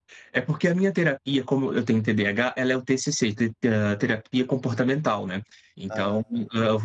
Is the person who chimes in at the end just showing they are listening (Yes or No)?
Yes